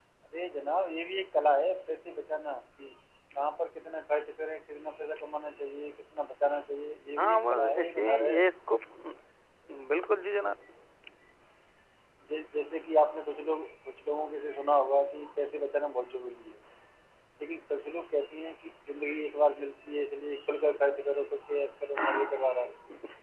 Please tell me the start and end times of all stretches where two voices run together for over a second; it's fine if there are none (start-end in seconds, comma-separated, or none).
7.2-8.4